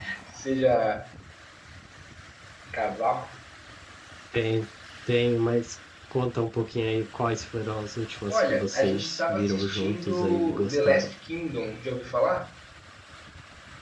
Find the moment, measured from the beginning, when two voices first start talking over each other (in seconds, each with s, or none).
8.3 s